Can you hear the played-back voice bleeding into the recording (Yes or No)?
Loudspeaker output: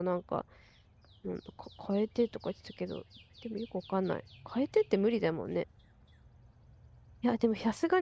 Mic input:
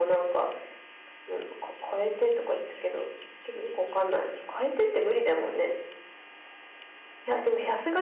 Yes